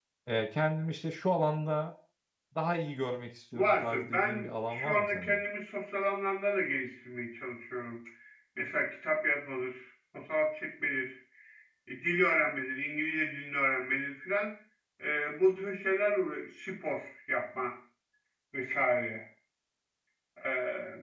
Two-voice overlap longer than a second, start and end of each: 3.5-5.3

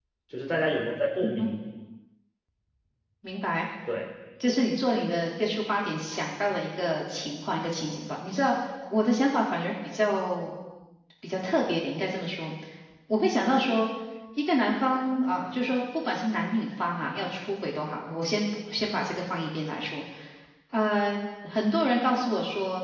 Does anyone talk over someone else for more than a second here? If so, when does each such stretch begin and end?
none

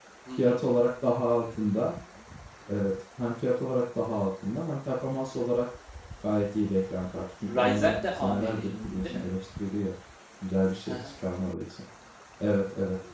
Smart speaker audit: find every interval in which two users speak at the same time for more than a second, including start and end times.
7.6-9.2

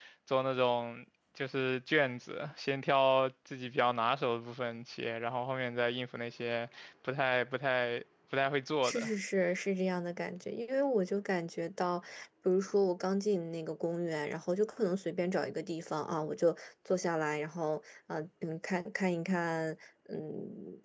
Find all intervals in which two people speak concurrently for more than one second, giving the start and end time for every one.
none

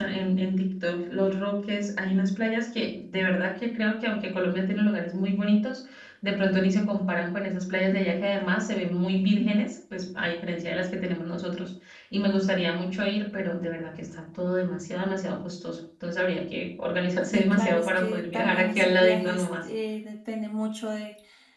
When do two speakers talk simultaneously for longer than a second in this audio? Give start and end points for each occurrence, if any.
17.3-19.7

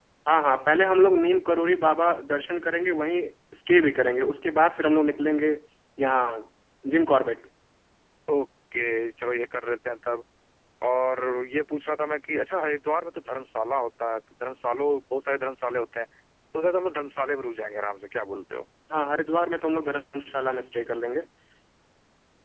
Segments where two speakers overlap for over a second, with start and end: none

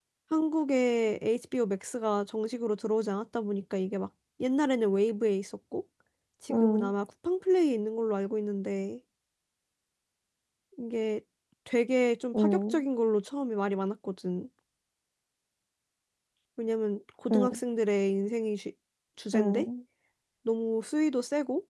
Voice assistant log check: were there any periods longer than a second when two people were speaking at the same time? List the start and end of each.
none

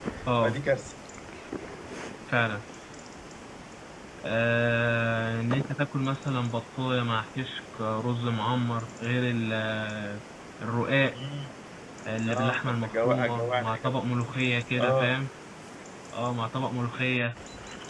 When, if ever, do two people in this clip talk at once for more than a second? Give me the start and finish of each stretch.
12.3-14.0

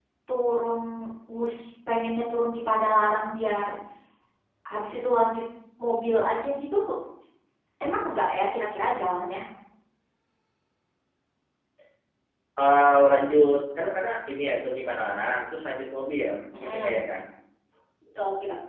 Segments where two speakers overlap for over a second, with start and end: none

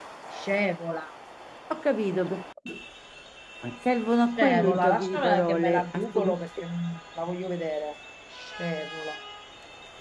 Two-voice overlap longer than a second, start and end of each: 4.4-6.3

